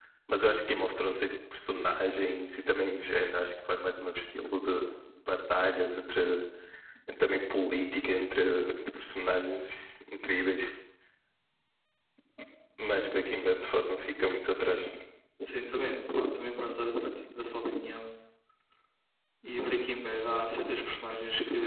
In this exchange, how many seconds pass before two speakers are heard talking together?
none

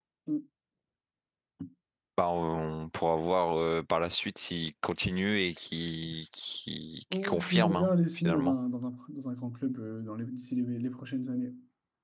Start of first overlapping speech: 7.1 s

